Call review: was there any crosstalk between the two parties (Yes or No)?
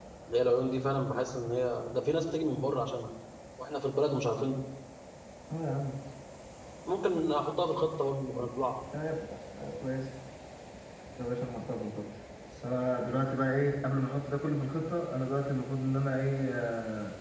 No